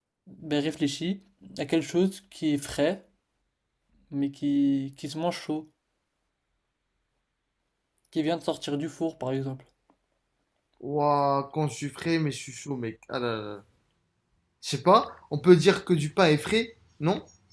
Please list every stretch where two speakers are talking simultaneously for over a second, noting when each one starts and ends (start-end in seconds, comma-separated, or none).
none